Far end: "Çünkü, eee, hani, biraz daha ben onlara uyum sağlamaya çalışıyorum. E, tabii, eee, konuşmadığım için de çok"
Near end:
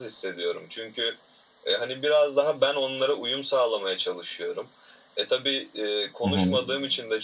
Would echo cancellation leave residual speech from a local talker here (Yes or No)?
Yes